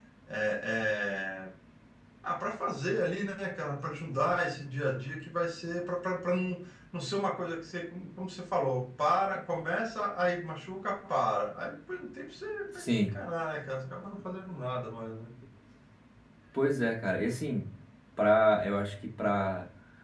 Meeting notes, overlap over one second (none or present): none